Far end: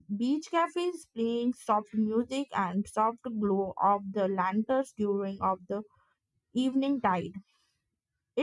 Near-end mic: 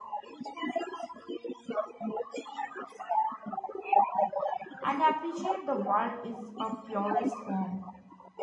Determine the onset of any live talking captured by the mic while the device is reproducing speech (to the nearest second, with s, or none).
5 s